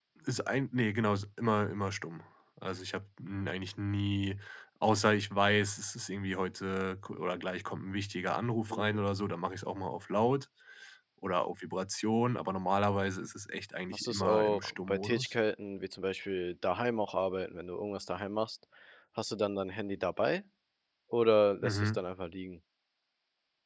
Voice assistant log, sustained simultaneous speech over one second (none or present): present